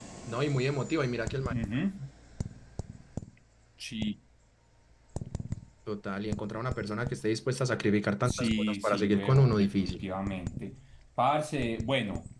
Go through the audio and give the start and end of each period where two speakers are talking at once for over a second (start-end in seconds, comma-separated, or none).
8.3-10.0